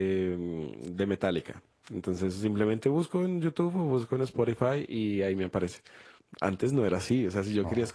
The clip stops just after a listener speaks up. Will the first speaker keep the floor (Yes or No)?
Yes